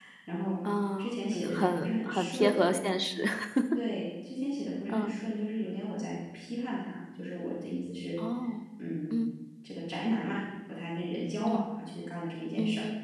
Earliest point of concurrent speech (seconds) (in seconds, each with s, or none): 1.0 s